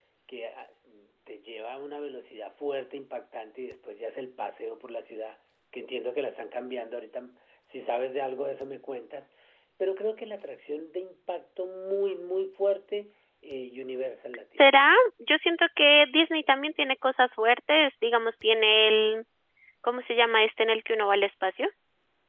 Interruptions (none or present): none